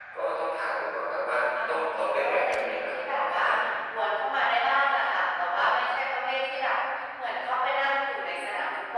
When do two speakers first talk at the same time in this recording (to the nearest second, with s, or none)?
2 s